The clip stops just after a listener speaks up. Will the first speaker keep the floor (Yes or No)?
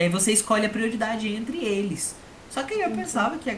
Yes